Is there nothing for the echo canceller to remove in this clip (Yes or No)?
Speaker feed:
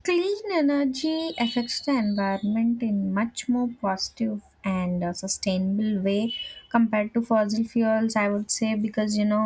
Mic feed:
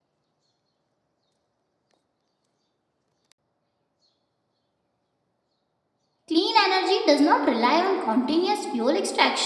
Yes